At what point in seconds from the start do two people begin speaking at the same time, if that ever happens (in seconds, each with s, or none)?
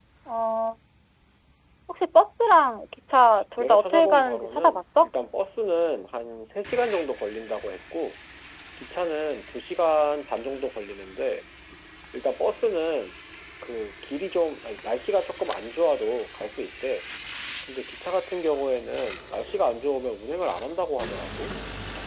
3.4 s